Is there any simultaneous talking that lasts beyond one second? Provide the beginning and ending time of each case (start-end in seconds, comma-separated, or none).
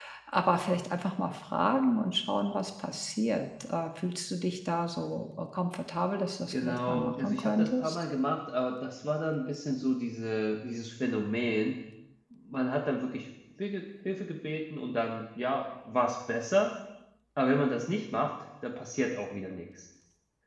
6.5-8.0